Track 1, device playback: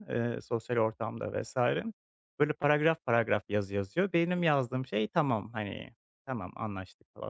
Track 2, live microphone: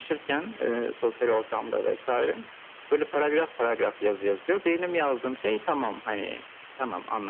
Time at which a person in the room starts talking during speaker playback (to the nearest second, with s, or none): none